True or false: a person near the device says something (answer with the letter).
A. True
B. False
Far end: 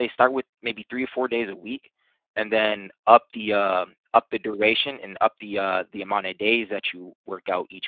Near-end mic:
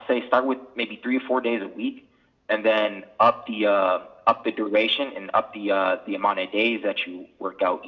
B